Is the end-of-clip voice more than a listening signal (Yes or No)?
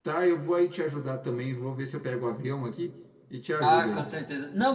Yes